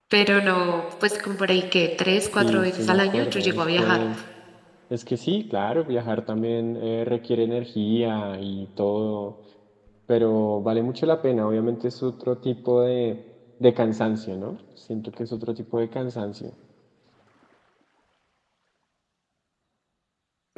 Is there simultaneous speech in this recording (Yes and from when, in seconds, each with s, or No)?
Yes, from 2.4 s